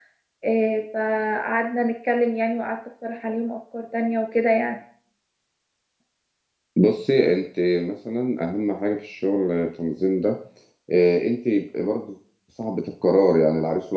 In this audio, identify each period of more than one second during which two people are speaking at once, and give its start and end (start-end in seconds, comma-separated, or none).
none